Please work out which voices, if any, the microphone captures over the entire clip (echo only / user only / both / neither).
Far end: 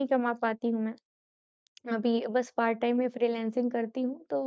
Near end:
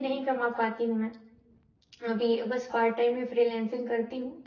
echo only